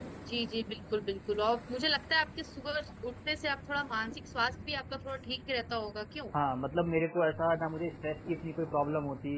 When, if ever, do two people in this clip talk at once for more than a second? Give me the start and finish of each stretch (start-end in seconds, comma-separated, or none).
none